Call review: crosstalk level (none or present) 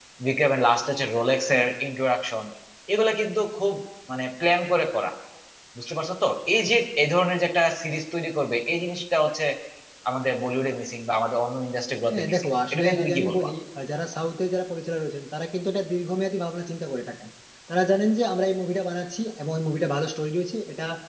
present